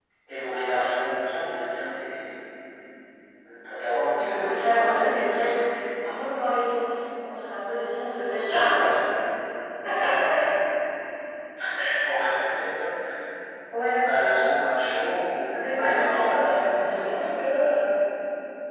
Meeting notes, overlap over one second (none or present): present